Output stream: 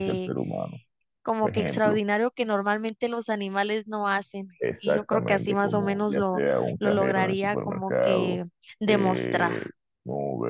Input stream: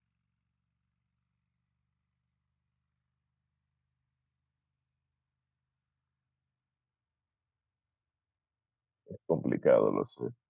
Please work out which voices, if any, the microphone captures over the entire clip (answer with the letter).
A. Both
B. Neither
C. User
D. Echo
C